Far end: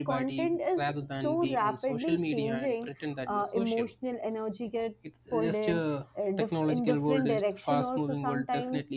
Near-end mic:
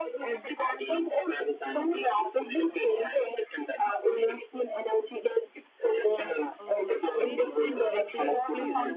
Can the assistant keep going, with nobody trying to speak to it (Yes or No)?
No